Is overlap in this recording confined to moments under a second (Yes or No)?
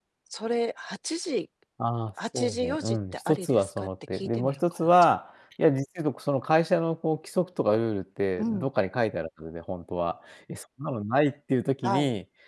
No